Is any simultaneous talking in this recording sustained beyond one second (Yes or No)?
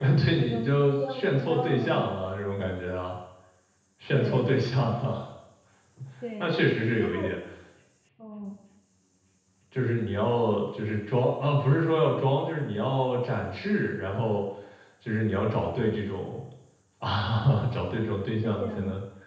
Yes